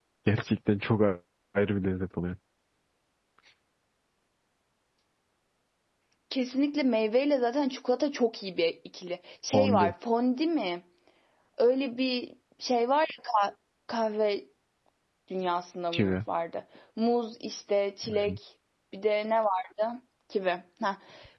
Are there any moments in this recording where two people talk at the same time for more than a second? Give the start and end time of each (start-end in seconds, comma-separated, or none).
none